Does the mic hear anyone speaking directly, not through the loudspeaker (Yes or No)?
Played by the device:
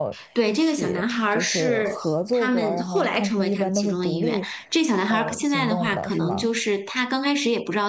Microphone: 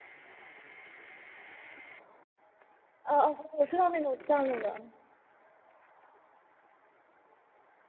Yes